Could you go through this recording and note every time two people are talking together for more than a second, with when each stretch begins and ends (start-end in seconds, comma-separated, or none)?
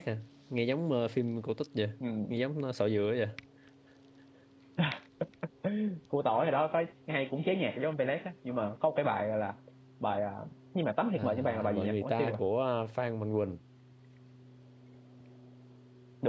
11.1-12.4